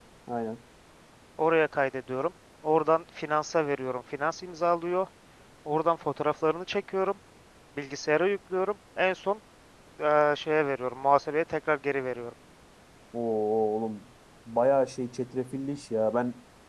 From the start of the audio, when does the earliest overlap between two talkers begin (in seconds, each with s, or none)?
none